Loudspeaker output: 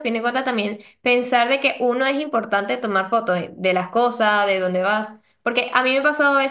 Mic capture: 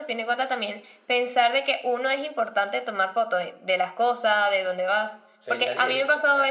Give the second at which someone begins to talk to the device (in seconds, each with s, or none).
5.4 s